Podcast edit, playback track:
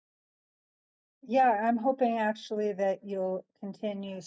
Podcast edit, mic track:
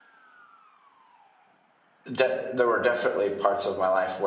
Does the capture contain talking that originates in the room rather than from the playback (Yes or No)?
Yes